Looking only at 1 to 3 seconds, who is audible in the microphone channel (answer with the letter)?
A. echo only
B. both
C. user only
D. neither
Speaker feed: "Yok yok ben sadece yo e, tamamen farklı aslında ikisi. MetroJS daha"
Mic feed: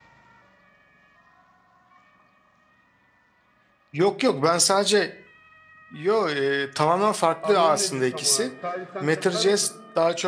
D